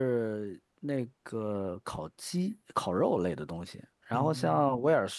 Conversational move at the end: listening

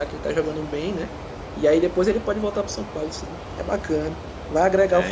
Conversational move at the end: taking over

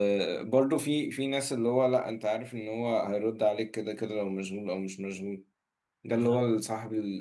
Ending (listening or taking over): listening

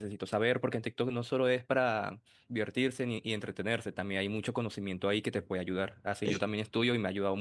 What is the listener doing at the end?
listening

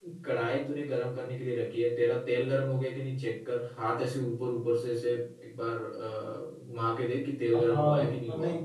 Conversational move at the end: taking over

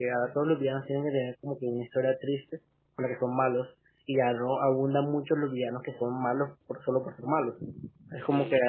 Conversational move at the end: listening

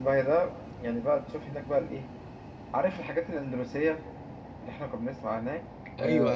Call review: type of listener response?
taking over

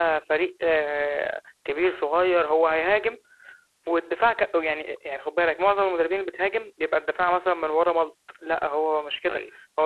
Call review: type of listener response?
listening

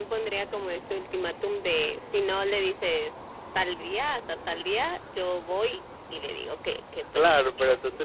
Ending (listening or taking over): taking over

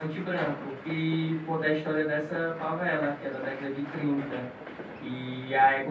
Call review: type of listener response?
listening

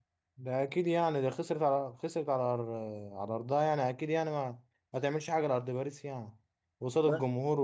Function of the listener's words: listening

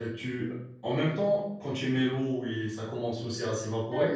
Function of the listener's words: taking over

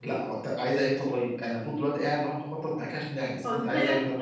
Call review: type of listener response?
taking over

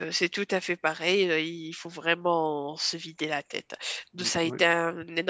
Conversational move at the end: listening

